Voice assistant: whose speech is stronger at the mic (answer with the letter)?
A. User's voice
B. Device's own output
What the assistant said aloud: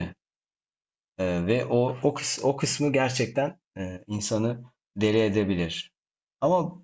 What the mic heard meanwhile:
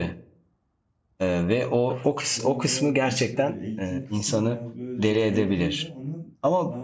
B